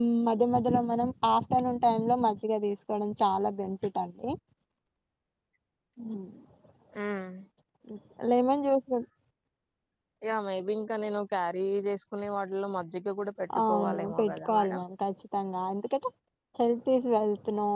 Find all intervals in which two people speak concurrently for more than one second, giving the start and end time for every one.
13.6-14.8

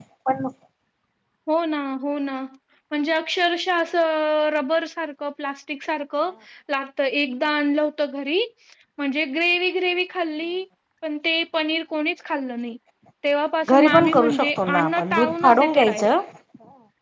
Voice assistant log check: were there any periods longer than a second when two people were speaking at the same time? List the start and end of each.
13.7-16.1

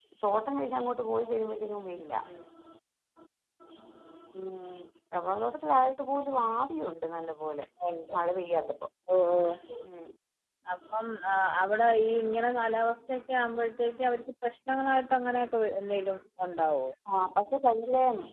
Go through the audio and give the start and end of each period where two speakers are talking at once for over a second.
none

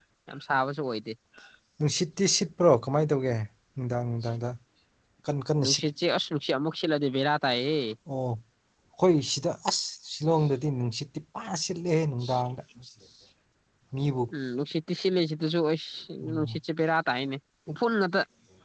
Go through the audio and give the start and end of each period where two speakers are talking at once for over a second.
none

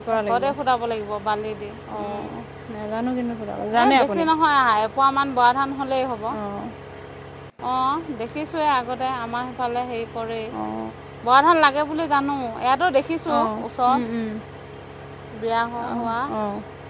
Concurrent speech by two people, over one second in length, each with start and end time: none

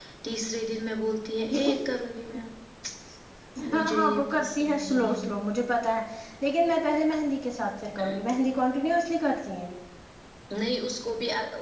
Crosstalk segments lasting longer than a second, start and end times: 3.7-5.1

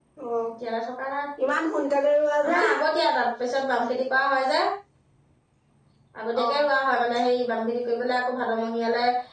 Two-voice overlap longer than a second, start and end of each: none

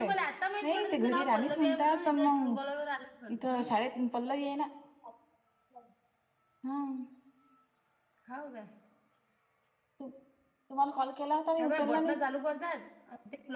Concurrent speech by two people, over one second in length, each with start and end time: 0.6-2.5

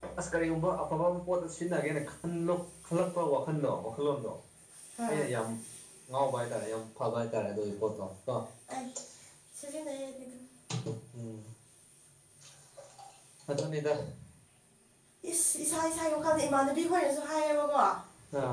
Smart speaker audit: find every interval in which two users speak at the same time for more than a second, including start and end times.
none

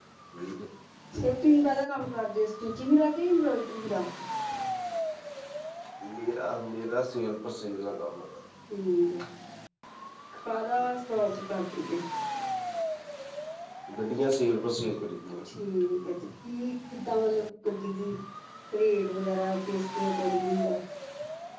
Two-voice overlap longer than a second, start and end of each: none

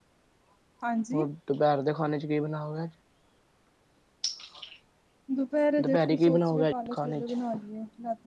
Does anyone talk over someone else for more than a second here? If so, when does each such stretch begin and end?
5.8-7.3

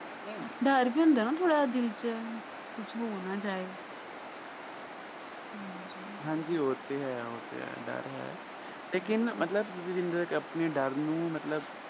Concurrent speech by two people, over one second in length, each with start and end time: none

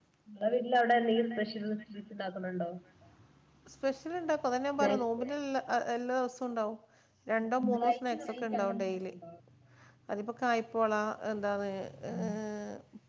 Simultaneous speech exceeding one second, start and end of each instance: 7.4-9.1

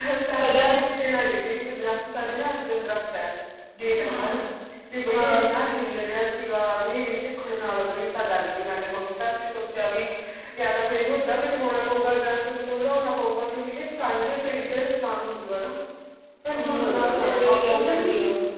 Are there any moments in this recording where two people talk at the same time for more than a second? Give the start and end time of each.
16.5-18.1

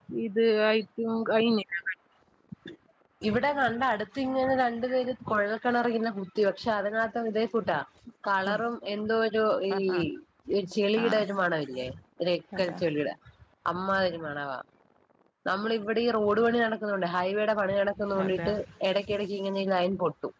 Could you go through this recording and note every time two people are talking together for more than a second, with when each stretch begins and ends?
none

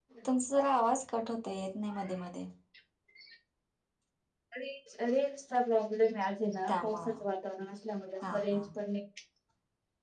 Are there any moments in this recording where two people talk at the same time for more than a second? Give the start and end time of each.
none

